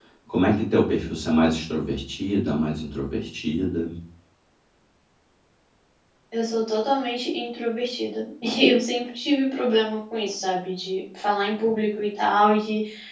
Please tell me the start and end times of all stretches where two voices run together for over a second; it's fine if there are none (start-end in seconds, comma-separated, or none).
none